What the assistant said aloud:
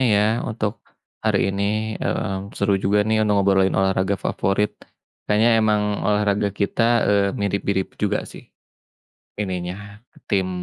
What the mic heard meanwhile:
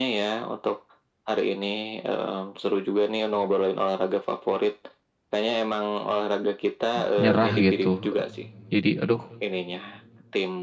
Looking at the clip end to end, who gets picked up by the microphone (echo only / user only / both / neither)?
both